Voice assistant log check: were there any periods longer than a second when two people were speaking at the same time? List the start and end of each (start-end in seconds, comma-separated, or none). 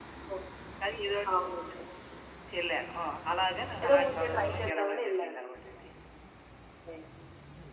3.8-5.4